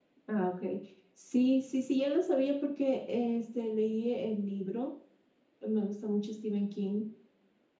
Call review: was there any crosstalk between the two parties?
No

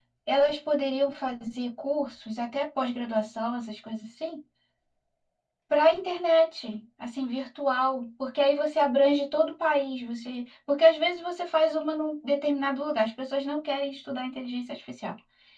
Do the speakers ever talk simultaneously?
No

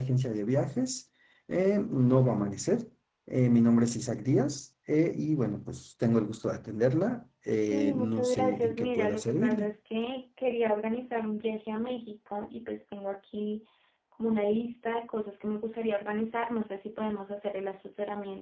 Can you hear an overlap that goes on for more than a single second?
Yes, from 7.6 s

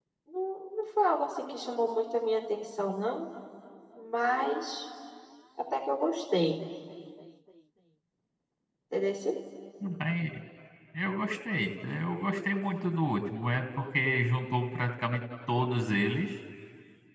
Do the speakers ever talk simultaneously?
No

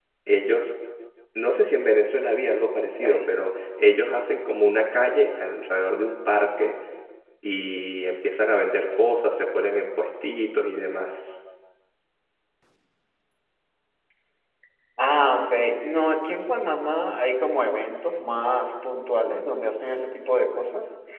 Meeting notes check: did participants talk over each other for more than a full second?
No

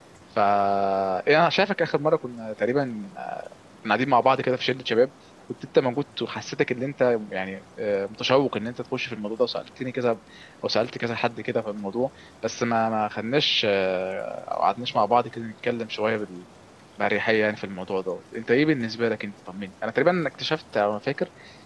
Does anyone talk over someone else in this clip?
No

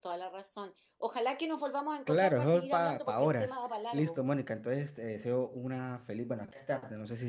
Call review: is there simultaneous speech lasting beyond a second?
Yes, from 2.1 s

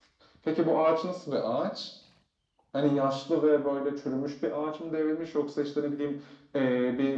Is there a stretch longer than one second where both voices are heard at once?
No

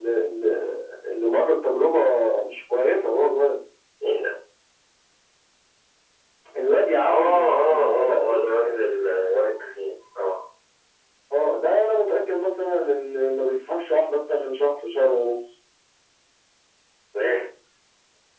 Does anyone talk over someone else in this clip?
Yes, from 7.1 s

